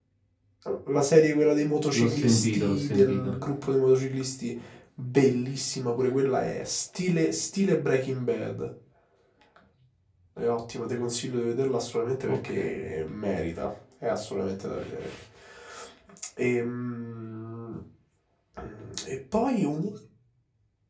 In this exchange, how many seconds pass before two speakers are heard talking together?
1.9 s

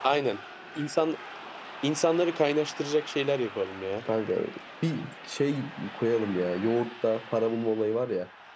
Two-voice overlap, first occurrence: none

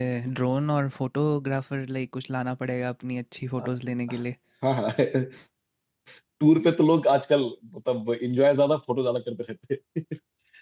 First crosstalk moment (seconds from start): none

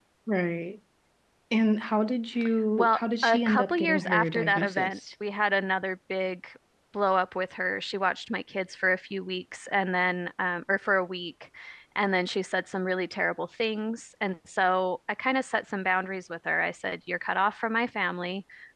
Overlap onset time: 2.8 s

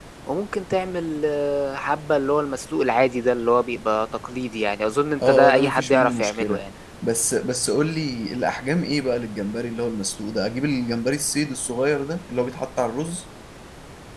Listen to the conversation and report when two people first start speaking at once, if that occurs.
5.2 s

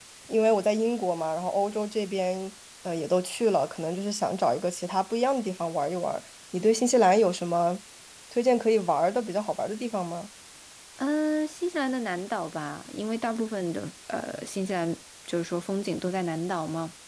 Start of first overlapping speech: none

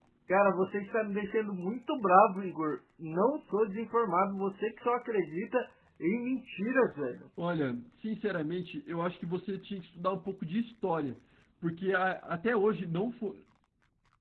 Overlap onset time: none

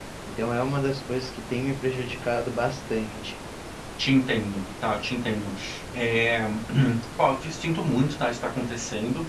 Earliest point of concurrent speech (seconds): none

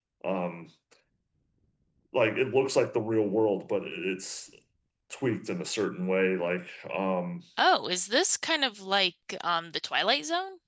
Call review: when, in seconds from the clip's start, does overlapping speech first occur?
none

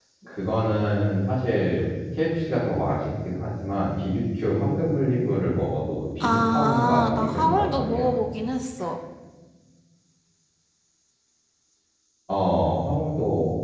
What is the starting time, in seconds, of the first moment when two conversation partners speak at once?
6.2 s

